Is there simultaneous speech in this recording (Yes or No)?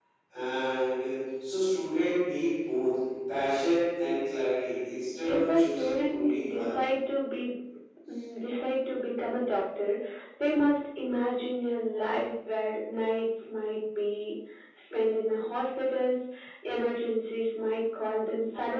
Yes